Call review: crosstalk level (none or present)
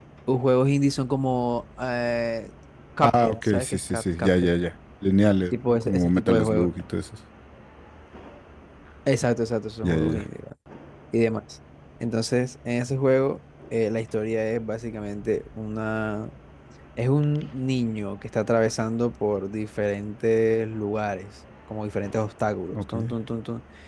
present